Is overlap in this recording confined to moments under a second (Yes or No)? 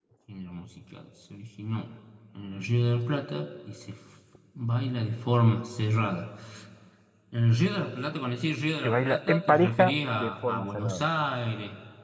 No